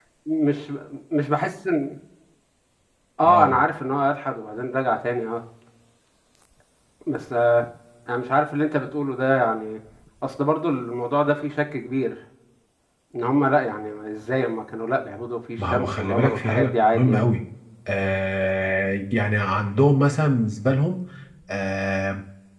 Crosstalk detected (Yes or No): Yes